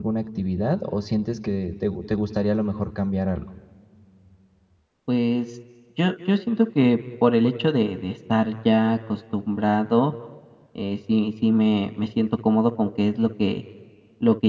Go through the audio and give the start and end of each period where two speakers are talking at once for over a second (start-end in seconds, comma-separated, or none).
none